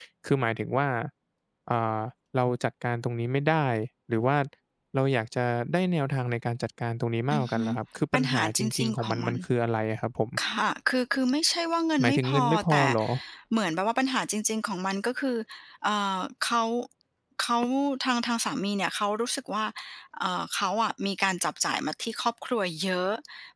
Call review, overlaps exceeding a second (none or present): present